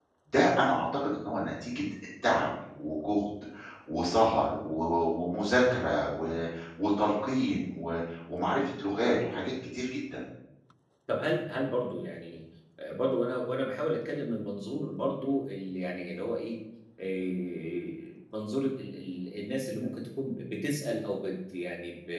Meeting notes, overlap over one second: none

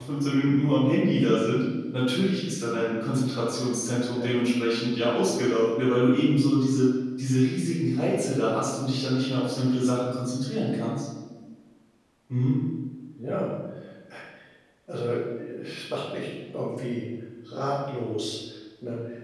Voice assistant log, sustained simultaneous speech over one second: none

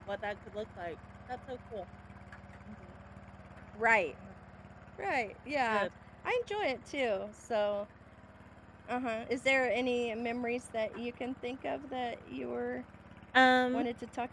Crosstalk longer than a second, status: none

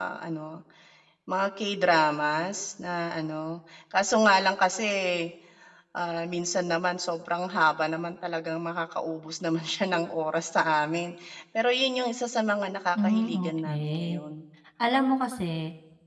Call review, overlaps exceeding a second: present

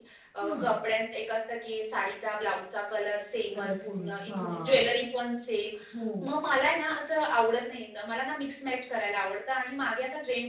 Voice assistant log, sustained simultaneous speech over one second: present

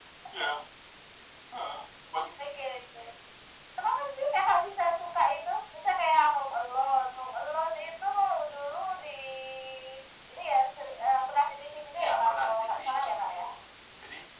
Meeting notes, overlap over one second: present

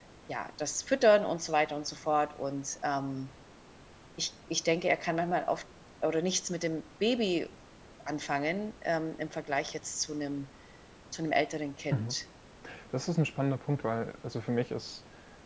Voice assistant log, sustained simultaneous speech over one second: none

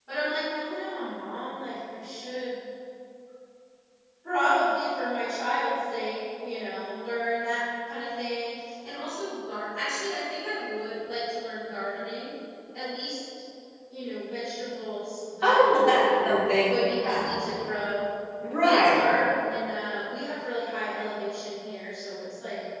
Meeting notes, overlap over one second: present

